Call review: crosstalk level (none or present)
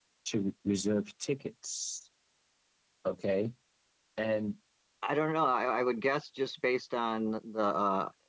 none